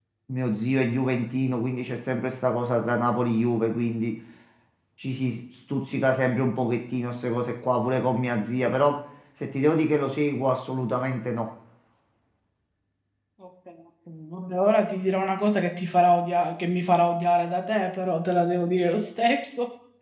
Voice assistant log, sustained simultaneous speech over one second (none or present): none